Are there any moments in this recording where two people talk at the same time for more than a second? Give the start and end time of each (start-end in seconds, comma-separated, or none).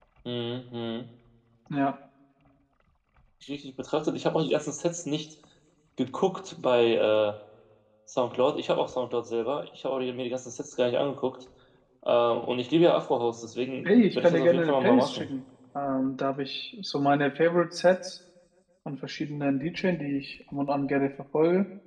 13.8-15.3